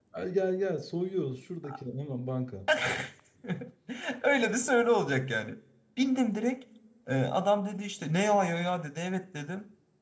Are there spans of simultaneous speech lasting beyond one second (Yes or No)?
No